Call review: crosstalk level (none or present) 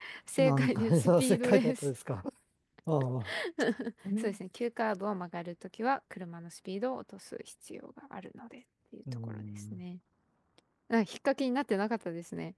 present